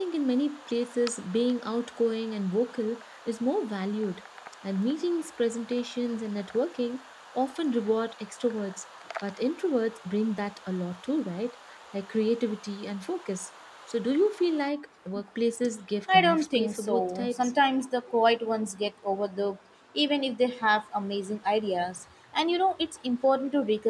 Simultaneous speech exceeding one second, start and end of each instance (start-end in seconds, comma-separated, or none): 16.1-17.5